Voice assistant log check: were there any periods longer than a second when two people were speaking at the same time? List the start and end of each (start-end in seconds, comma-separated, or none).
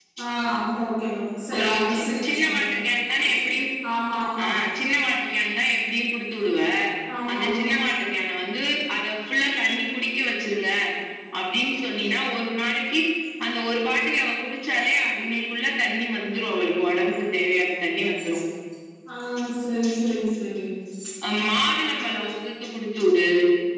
1.6-2.8